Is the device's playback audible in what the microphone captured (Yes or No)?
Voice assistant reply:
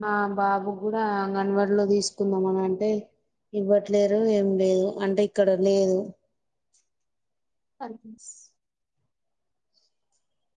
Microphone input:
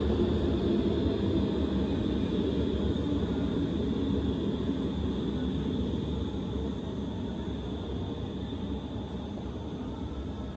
No